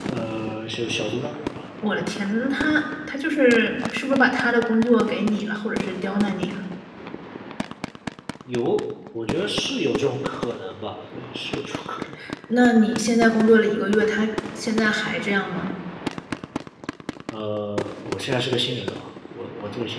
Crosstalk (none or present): none